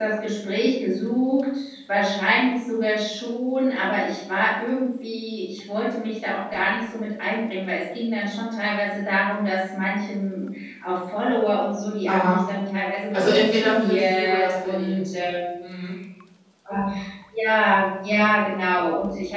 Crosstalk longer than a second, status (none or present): present